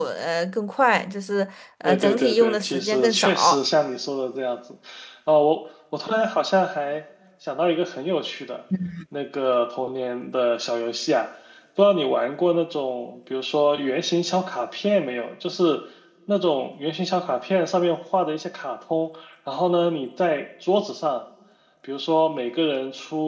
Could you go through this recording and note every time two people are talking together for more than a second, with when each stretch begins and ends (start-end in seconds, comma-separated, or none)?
1.8-3.6